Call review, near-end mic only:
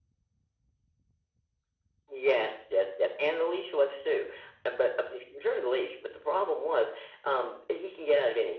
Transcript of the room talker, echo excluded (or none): none